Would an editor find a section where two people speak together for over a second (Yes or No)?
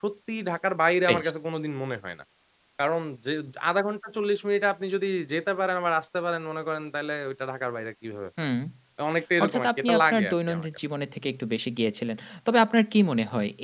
Yes